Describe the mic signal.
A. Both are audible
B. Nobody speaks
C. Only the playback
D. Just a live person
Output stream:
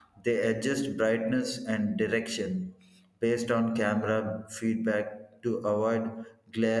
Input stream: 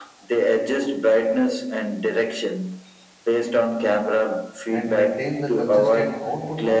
A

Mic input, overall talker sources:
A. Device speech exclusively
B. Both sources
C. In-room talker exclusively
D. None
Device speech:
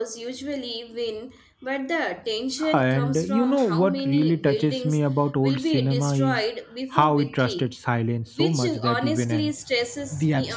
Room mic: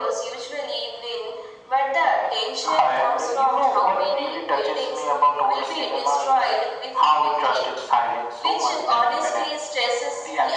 A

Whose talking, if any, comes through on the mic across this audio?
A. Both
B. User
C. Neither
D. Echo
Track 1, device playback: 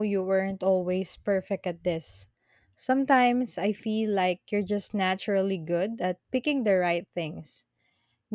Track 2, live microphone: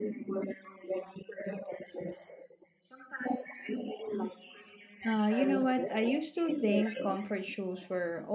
A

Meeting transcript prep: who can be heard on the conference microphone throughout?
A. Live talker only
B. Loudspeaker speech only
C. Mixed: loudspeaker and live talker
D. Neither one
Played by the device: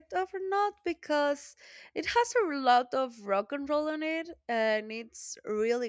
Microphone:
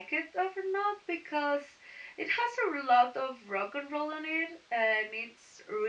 B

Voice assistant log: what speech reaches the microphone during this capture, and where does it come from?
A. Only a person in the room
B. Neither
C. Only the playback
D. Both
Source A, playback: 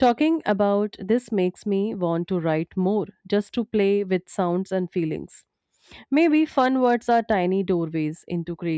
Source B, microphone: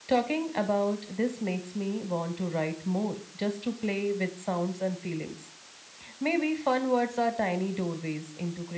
C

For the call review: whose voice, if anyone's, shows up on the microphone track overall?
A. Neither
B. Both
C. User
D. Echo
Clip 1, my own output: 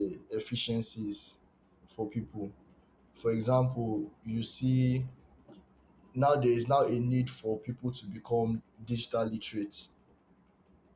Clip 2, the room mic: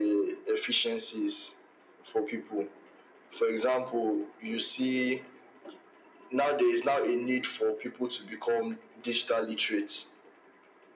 D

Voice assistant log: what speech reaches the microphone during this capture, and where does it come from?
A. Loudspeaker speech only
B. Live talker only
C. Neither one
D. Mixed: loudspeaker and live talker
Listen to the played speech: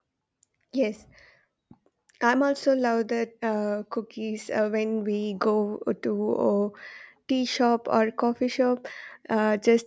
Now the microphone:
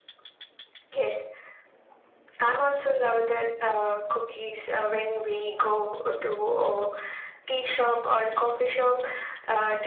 A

